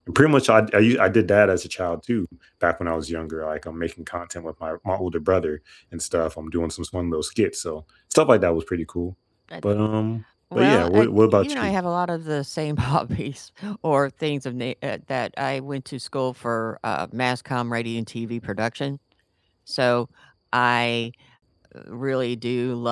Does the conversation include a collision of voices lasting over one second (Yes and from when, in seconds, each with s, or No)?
Yes, from 10.6 s